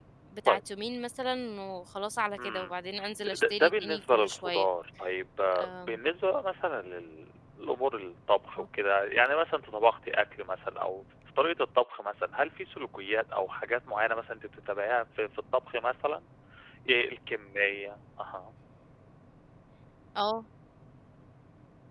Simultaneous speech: Yes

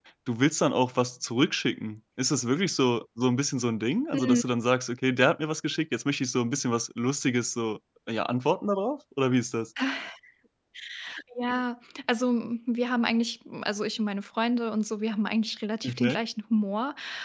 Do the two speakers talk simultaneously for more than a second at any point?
No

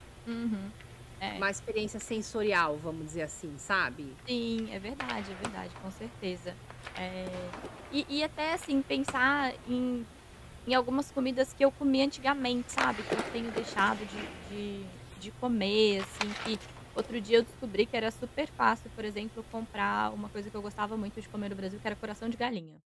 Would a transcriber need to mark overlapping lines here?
No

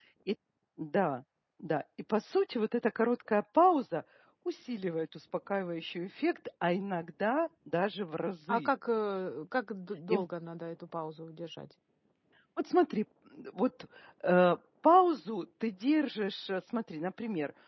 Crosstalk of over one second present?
No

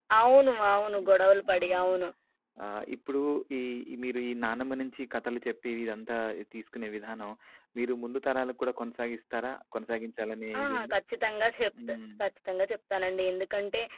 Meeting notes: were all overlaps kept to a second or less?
Yes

